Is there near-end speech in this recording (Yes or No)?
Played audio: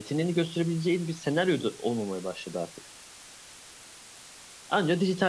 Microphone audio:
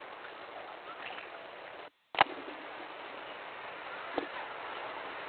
No